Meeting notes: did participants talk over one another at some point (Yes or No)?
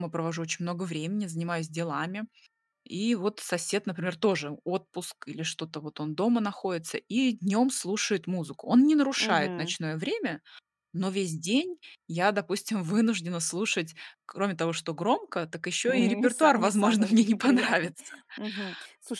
Yes